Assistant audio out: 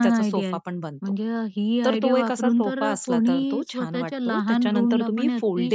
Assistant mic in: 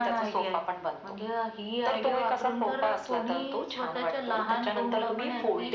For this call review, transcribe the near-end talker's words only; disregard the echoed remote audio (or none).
none